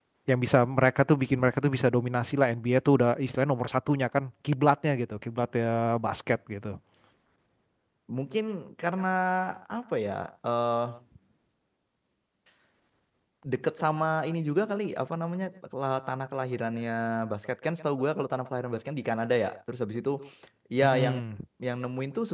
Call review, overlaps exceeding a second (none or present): none